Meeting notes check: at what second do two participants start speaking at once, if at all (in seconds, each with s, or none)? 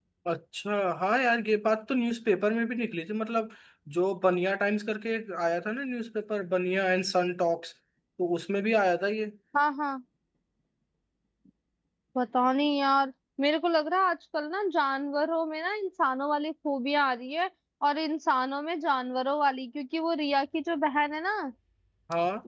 none